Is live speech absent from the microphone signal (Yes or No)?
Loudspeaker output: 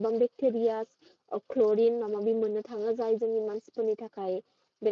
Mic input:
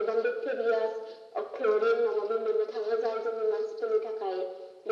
Yes